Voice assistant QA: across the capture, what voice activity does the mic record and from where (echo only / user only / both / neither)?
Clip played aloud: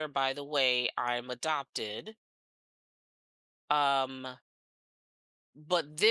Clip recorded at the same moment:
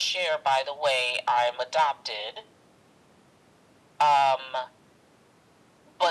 echo only